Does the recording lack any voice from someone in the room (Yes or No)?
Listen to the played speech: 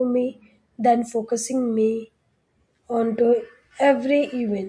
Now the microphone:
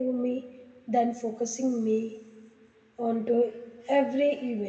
Yes